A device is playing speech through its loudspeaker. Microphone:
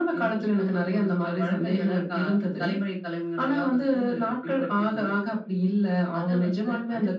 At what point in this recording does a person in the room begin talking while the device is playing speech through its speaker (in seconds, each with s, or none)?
none